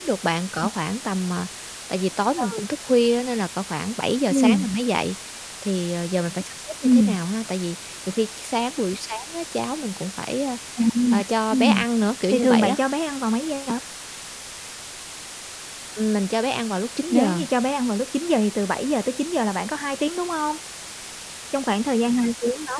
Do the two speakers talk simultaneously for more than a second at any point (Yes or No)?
No